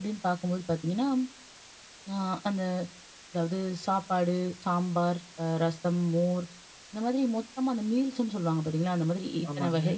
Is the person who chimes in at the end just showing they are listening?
Yes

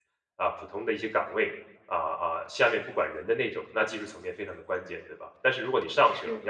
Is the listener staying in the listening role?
Yes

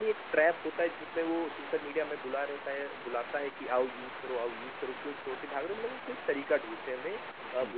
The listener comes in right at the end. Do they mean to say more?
No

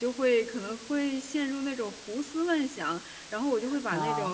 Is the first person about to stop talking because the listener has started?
No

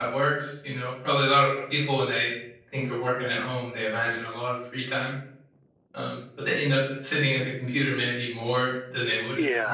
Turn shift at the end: Yes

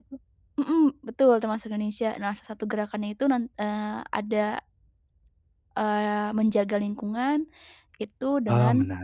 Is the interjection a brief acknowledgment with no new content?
Yes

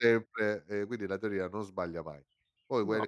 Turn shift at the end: No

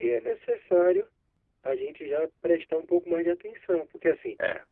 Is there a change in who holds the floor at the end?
No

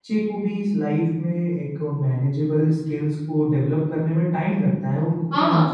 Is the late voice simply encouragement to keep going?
Yes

